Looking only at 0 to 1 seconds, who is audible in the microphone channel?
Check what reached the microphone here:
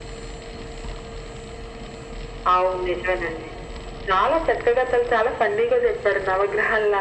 neither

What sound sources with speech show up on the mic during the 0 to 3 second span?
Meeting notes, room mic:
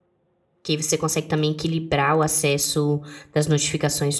user only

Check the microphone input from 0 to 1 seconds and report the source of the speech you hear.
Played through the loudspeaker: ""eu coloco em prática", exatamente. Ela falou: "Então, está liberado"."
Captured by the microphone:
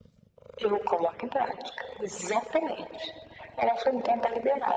echo only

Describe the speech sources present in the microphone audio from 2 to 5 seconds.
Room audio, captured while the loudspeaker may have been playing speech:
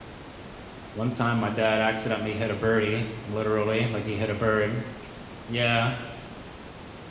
user only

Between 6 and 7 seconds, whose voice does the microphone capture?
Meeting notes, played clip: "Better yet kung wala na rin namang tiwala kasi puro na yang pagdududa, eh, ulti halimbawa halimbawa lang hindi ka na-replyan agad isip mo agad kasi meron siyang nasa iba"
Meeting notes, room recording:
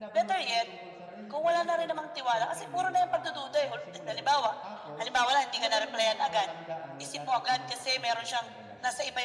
both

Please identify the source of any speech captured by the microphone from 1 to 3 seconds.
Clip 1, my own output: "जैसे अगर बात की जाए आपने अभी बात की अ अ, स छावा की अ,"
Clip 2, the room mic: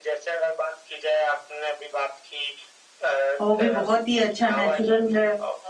echo only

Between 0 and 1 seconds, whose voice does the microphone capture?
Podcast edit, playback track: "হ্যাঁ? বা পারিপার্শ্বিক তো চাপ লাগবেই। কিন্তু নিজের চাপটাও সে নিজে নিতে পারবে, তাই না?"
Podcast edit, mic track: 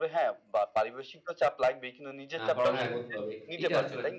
echo only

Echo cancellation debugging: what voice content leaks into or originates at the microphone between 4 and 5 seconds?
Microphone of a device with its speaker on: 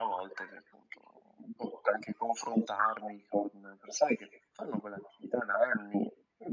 echo only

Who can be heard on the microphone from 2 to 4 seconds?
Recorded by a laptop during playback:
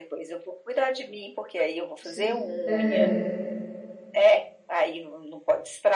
both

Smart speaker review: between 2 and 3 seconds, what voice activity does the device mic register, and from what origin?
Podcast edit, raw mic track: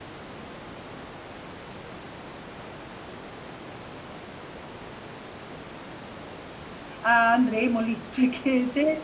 neither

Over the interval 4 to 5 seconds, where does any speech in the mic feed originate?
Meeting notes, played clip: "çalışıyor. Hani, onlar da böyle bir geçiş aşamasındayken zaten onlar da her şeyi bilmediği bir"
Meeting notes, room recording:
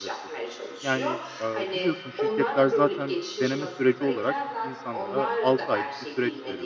both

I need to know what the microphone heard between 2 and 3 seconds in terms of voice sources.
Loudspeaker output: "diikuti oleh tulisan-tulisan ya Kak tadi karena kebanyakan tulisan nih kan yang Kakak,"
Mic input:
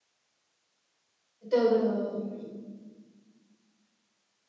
user only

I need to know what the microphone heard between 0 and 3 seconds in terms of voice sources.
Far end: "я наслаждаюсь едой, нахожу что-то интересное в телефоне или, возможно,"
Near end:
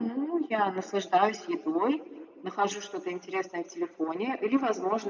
echo only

